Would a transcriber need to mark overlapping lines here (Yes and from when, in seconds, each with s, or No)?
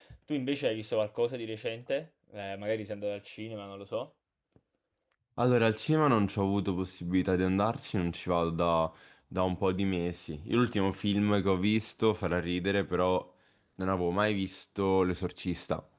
No